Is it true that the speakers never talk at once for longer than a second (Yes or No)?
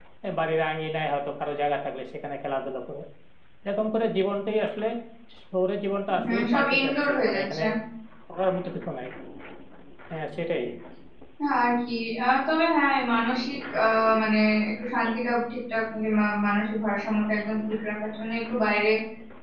No